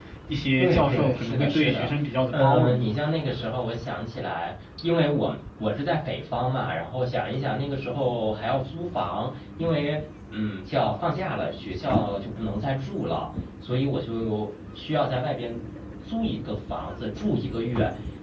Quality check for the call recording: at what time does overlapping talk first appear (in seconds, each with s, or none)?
0.6 s